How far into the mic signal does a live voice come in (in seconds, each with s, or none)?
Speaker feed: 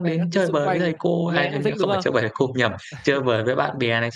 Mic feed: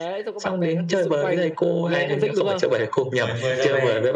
3.1 s